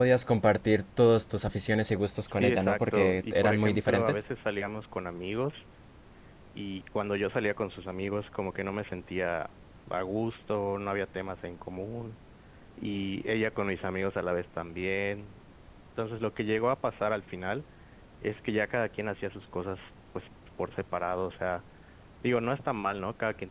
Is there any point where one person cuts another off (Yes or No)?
Yes